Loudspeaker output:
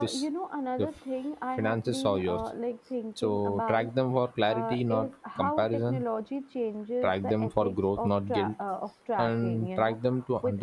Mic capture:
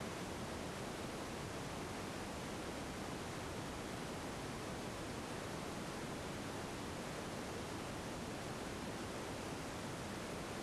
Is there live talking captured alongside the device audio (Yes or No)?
No